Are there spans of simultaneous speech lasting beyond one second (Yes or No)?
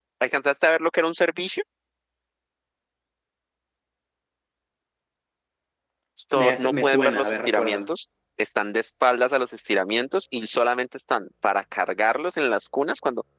Yes